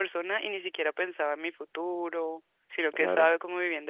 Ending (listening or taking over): listening